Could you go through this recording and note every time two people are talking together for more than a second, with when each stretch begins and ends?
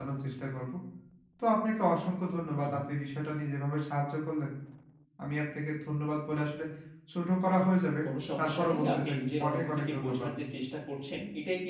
8.4-10.3

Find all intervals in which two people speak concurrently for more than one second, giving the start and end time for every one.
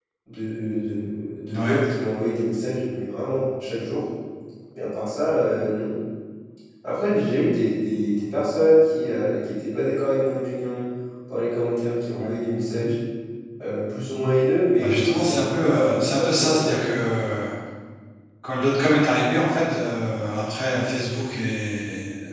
14.8-16.9

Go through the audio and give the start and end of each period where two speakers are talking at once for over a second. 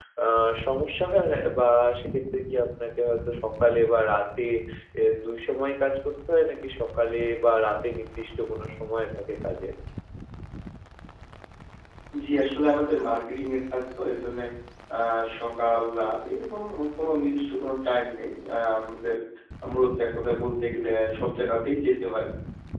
none

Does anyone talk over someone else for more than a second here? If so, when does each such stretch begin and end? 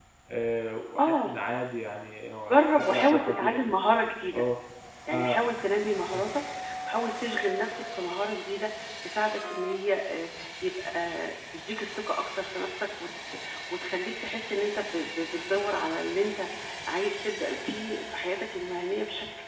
2.5-3.7

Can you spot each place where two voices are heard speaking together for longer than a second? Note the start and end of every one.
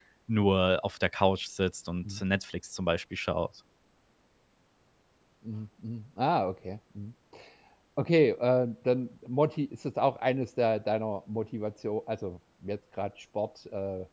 none

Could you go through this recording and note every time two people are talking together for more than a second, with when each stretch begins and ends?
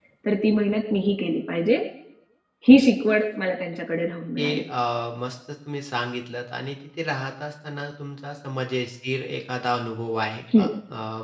none

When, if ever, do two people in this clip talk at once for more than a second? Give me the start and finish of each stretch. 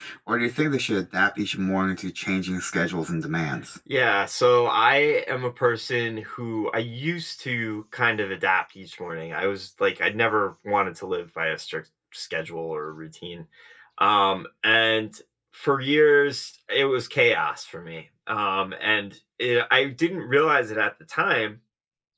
none

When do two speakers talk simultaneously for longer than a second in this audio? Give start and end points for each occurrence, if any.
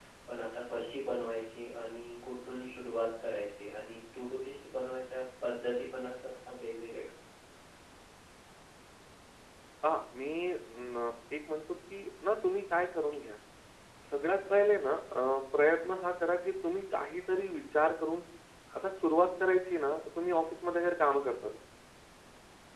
none

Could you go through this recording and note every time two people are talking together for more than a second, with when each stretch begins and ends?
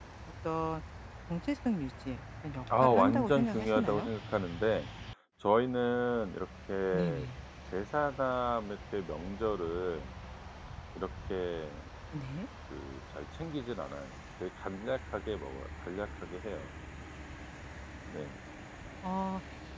2.8-4.1

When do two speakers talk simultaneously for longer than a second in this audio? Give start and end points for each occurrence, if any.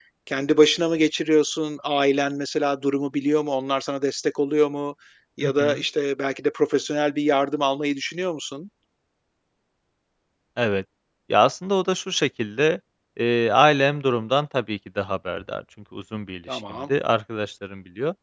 none

